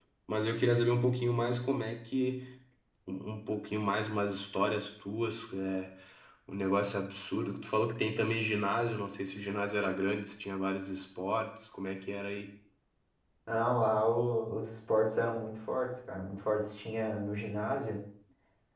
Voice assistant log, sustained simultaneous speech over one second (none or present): none